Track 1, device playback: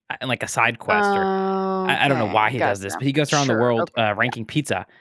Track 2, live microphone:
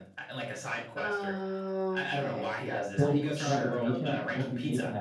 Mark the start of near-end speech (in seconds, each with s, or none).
3.0 s